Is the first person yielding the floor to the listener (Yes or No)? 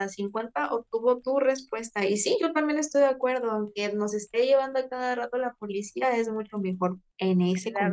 Yes